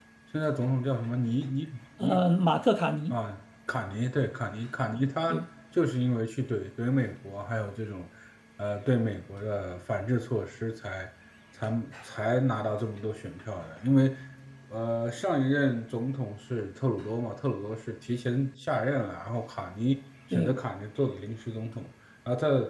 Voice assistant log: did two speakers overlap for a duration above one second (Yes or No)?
No